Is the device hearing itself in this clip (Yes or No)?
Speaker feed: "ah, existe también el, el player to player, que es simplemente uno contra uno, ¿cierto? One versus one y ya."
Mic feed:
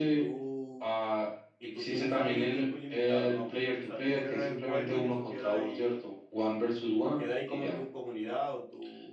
Yes